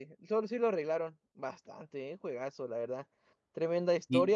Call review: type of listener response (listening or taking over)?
listening